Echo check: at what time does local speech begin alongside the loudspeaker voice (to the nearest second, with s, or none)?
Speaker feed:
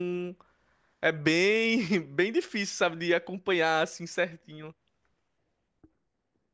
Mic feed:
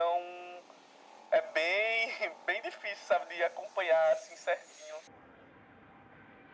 none